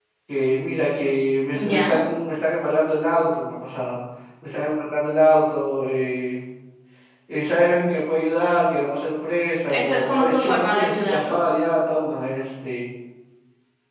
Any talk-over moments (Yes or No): Yes